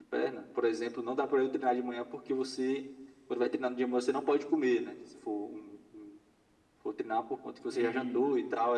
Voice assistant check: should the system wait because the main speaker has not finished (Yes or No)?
Yes